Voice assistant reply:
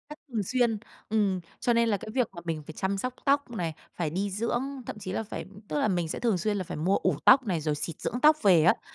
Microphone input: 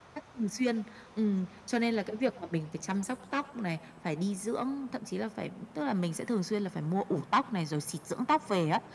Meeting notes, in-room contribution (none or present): none